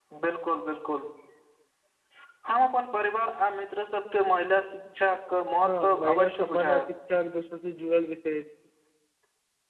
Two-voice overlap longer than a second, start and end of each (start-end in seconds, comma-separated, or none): 5.6-6.9